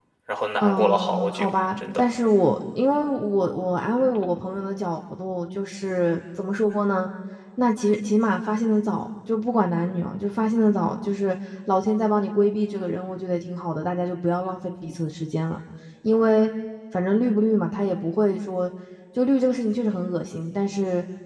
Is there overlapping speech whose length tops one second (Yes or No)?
Yes